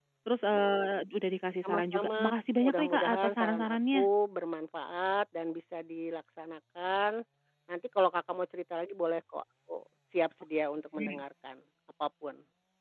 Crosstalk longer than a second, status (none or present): present